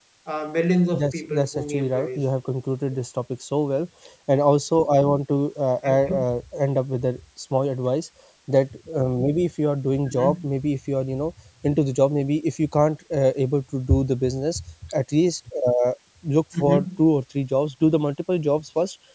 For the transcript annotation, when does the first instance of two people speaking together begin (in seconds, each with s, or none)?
0.9 s